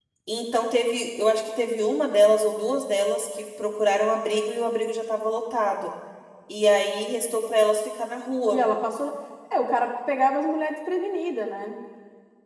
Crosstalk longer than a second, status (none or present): none